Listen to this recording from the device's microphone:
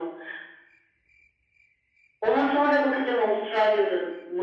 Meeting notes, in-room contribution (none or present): none